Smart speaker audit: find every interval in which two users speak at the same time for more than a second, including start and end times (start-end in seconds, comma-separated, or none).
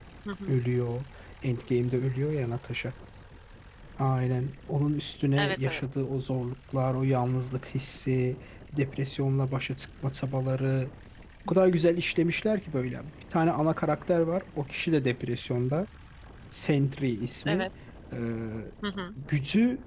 none